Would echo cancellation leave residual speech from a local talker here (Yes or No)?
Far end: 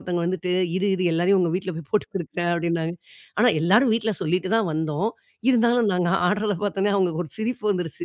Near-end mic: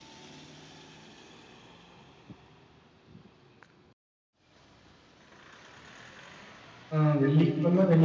Yes